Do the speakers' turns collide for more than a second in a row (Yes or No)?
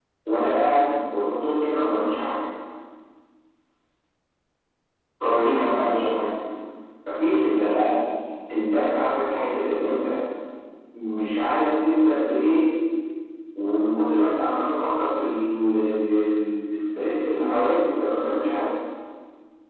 No